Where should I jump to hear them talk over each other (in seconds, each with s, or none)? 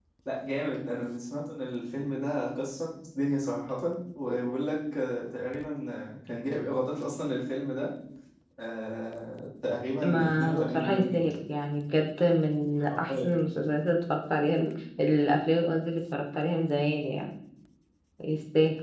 10.0 s